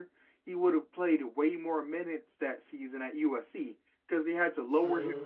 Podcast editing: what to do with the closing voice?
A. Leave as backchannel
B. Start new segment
A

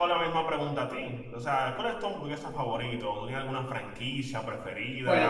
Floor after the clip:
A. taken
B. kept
A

